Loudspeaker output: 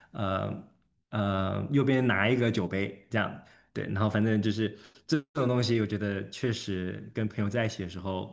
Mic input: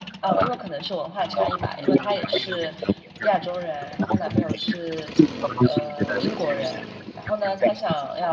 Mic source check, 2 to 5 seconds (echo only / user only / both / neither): both